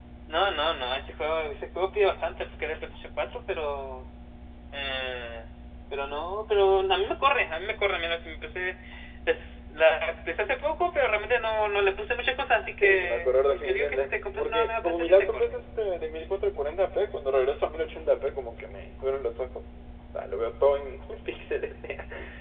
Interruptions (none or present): present